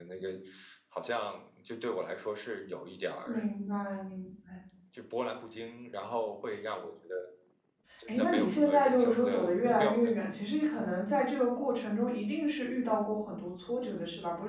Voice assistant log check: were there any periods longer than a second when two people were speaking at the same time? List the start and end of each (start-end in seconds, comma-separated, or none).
8.1-10.1